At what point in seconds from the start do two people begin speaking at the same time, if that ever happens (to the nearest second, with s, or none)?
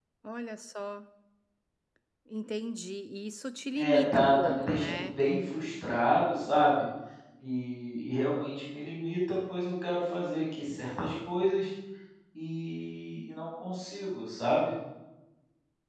4 s